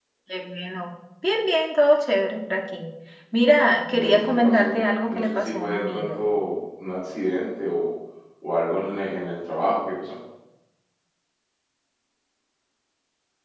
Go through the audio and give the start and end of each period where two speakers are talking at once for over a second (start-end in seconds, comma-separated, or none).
3.9-6.2